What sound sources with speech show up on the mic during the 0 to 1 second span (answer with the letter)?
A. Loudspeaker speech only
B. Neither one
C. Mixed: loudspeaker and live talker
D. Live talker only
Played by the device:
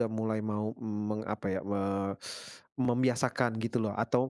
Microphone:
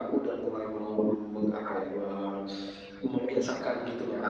A